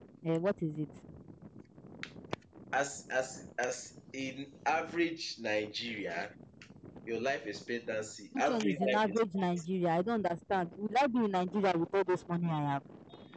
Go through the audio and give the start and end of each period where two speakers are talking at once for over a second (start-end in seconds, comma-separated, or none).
8.4-9.6